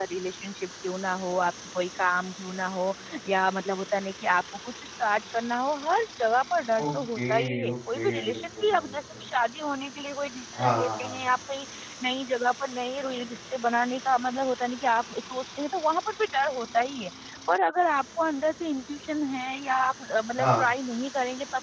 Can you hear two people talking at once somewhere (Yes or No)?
Yes